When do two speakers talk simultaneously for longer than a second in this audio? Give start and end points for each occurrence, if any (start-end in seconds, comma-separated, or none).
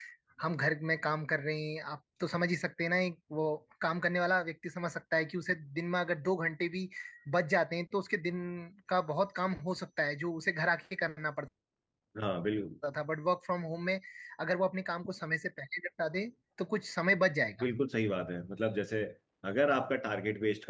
none